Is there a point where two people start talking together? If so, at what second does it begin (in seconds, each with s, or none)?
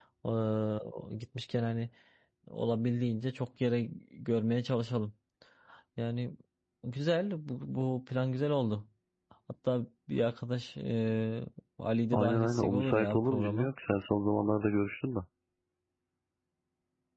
12.1 s